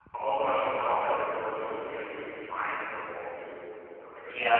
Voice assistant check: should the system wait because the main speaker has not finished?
No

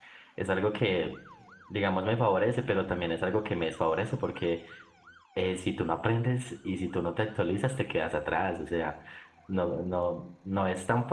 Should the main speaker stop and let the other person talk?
No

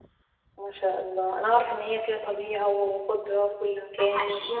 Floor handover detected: Yes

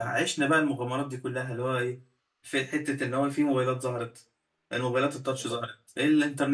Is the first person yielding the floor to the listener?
No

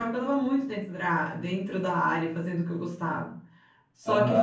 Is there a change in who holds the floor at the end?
Yes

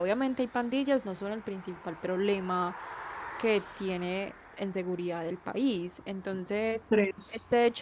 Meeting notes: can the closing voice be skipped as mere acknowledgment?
Yes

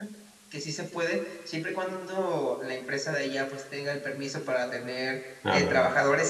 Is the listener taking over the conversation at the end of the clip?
No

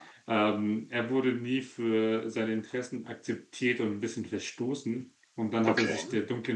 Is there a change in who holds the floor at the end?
No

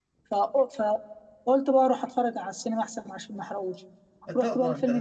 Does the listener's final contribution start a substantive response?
Yes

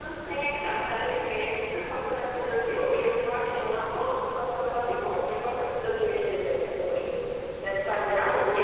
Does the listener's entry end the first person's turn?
Yes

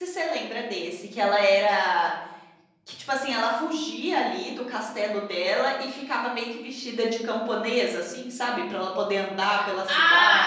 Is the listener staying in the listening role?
No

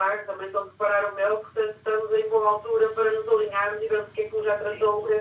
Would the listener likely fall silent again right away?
Yes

